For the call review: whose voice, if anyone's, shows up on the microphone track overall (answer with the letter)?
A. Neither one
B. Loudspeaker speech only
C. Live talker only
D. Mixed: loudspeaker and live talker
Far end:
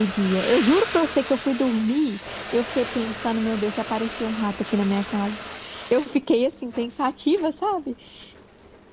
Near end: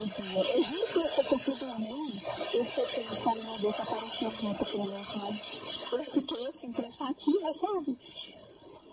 B